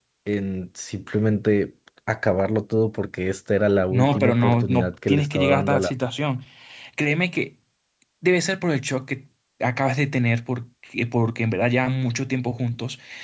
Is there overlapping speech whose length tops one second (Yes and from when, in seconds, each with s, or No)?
Yes, from 3.9 s